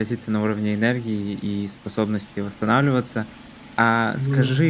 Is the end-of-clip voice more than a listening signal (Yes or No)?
No